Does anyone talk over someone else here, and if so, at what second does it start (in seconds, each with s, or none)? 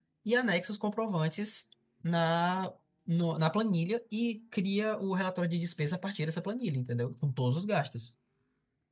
none